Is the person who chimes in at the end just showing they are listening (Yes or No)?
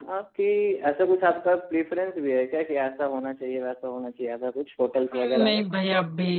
No